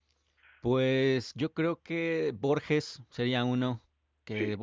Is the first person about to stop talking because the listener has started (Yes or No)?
No